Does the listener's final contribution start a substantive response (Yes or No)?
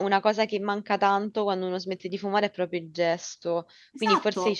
No